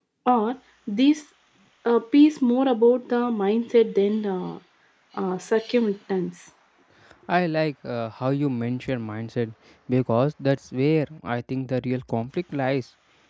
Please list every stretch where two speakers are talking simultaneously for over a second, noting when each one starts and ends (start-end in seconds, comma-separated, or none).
none